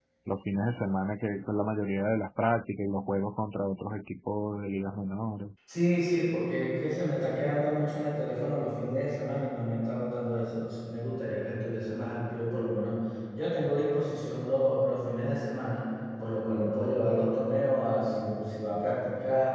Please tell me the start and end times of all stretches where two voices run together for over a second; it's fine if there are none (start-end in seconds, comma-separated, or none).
none